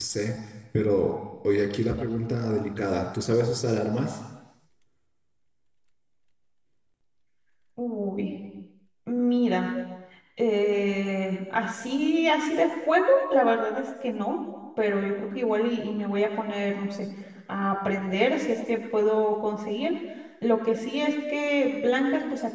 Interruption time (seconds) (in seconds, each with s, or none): none